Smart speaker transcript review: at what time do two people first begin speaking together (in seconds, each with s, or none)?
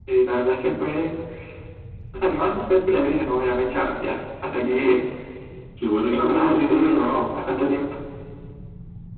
6.1 s